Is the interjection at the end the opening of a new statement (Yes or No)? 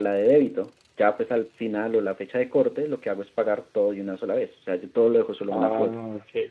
Yes